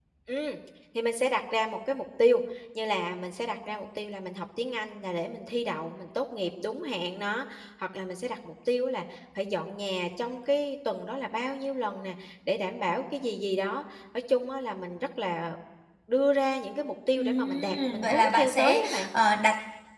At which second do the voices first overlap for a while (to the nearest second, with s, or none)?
17 s